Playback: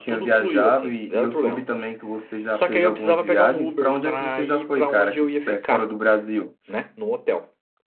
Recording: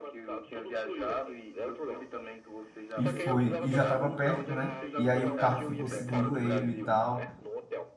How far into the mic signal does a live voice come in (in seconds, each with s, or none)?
3.0 s